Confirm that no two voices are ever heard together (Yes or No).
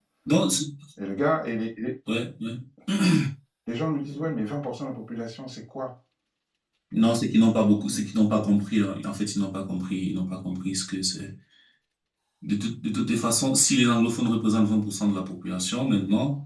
Yes